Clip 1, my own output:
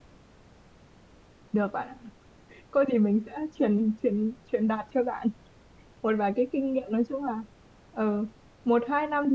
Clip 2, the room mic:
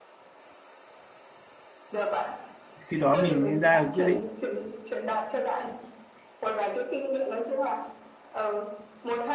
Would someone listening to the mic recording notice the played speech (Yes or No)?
Yes